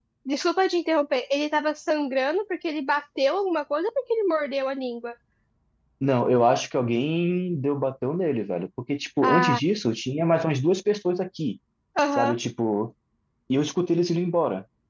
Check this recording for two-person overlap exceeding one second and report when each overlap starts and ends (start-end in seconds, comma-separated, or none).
none